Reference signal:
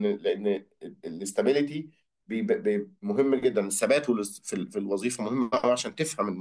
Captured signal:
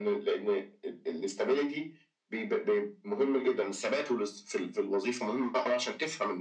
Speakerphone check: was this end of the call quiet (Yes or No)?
Yes